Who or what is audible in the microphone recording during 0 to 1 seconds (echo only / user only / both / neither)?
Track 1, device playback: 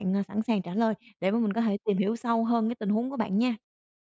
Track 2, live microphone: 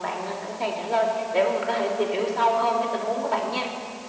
echo only